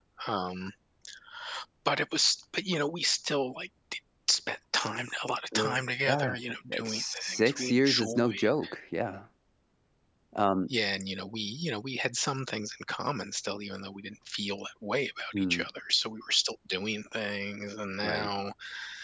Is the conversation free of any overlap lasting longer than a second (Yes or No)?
No